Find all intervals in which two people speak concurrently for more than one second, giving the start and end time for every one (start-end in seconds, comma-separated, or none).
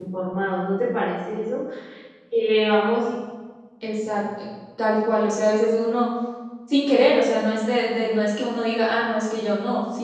none